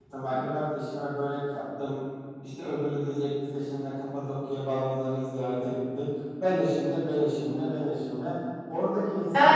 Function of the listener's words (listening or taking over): taking over